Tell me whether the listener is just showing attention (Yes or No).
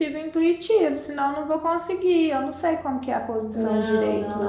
No